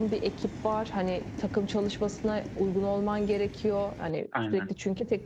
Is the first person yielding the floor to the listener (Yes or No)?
No